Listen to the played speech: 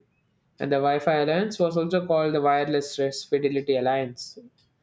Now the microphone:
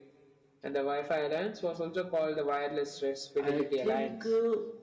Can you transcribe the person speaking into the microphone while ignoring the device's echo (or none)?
I think uh,